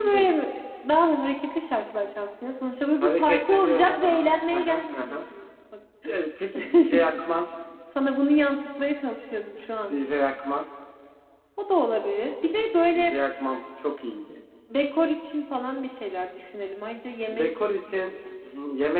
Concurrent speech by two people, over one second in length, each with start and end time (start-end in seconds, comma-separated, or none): 3.0-5.2